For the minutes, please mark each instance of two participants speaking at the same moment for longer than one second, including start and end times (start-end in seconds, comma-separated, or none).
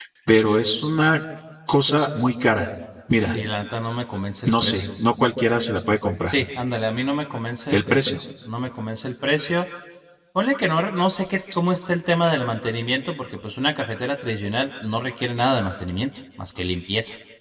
none